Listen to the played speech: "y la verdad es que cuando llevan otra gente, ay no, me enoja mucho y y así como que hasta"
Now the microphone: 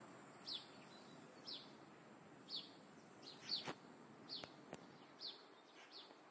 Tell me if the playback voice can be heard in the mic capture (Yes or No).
No